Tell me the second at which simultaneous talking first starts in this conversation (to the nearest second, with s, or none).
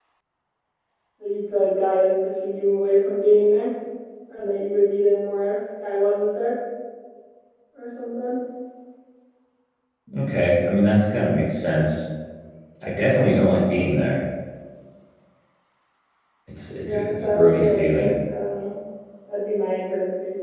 17 s